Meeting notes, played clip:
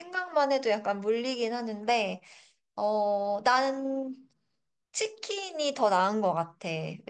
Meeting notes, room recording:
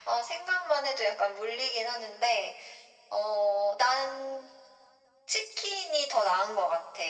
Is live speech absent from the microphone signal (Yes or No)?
Yes